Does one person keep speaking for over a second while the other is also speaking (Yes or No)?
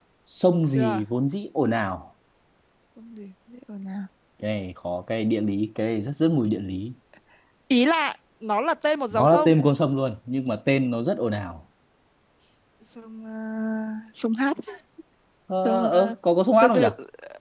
No